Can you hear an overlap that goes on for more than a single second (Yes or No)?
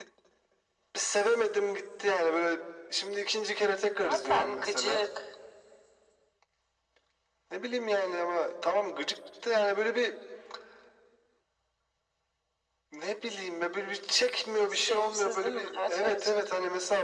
Yes